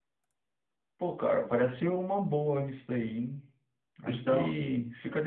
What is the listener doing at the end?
listening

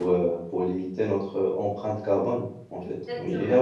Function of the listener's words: listening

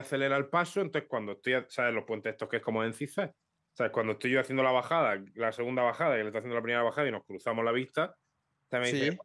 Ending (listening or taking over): listening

